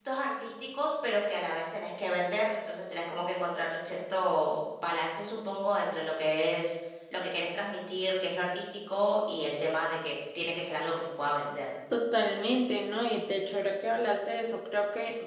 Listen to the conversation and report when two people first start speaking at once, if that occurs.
none

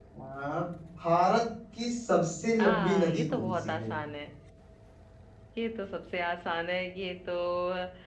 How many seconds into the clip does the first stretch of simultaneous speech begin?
3 s

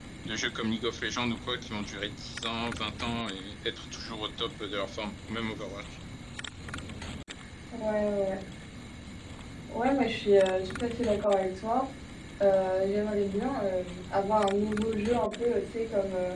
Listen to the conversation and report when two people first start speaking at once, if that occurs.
none

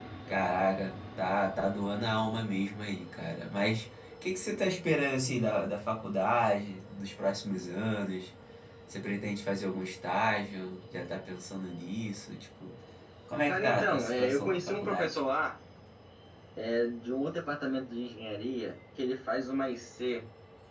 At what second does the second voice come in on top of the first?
13 s

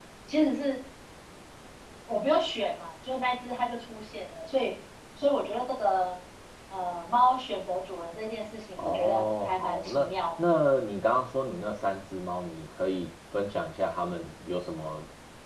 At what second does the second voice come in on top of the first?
9 s

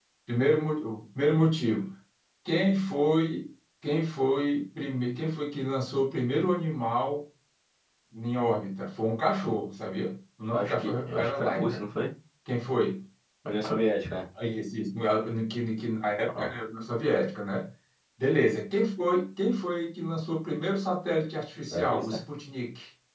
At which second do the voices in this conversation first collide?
11 s

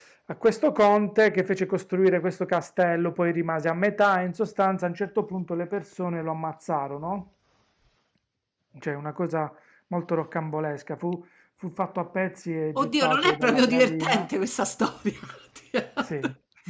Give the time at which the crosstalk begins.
13 s

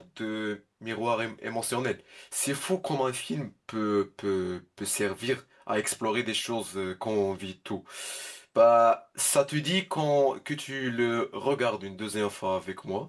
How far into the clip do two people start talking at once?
none

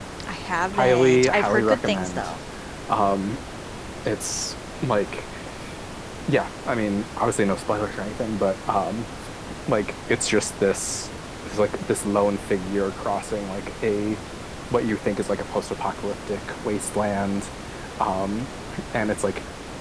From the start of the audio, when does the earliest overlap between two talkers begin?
1 s

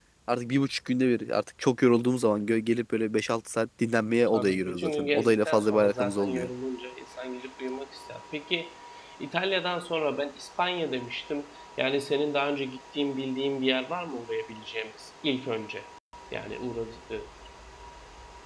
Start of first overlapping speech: 4 s

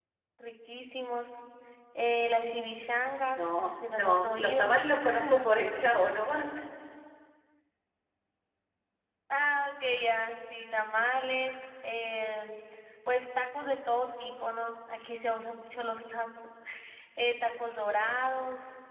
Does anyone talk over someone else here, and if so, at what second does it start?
3 s

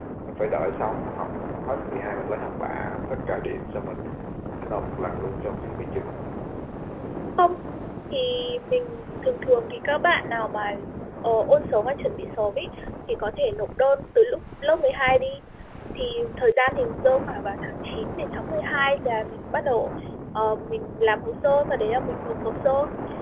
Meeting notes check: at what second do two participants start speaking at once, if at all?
none

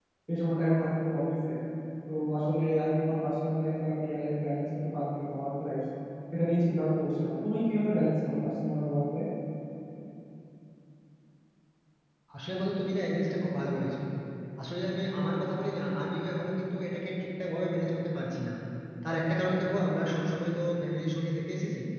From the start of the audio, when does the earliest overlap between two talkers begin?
none

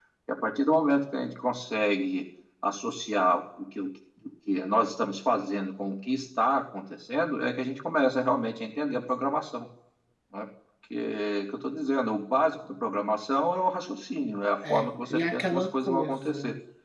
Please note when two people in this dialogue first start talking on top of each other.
15 s

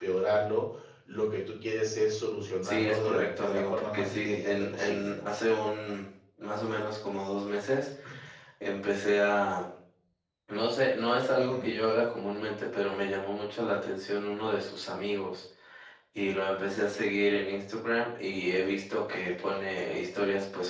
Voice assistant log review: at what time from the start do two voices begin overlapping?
3 s

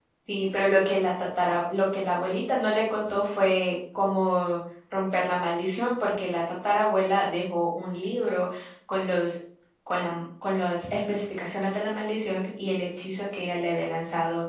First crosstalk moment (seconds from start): none

